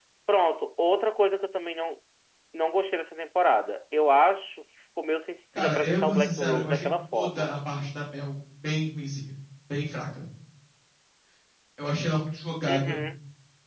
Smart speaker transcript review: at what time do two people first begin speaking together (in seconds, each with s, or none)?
5.6 s